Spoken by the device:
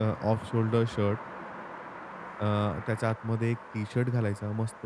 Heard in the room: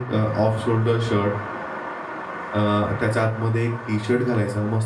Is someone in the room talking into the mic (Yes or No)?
No